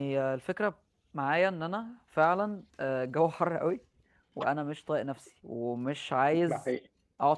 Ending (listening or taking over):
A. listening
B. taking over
A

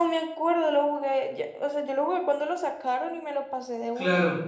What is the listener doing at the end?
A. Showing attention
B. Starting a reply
B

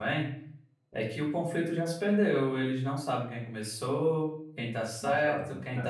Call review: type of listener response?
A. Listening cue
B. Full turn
A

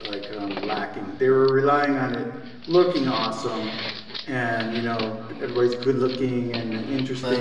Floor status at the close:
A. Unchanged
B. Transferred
A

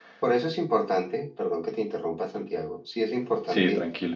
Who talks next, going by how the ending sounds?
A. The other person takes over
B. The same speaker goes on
B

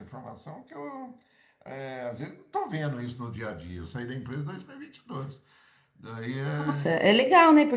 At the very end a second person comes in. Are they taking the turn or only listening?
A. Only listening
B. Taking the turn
B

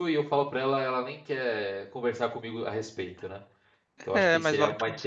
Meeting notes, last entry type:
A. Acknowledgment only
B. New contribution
B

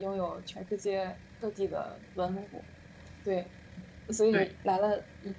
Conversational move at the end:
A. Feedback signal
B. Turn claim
A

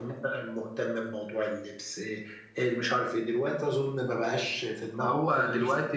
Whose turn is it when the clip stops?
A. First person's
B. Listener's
B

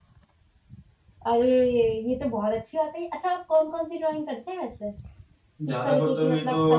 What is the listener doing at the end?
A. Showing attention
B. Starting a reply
B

